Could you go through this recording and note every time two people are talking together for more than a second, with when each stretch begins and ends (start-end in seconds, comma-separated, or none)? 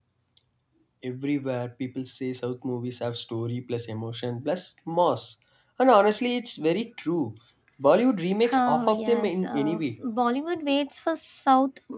8.5-10.0